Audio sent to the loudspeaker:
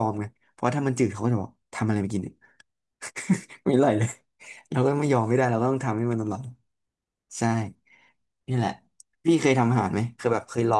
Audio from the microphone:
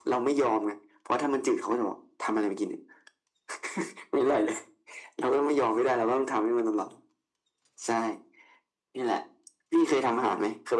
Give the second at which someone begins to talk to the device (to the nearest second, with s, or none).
none